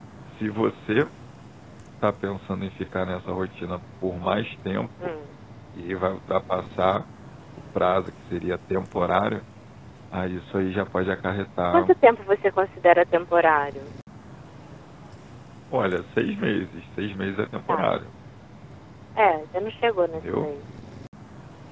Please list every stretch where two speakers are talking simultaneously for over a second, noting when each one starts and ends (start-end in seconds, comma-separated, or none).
none